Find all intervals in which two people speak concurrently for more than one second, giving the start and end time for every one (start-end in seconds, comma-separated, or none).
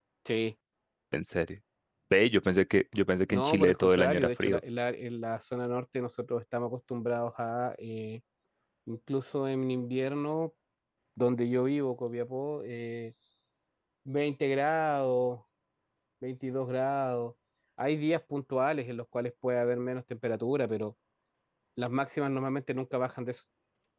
3.3-4.6